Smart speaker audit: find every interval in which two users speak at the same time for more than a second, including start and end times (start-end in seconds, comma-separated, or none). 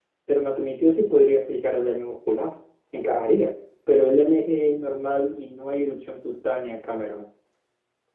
none